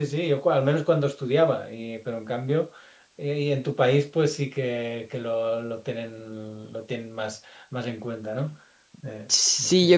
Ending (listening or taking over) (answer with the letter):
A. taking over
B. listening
A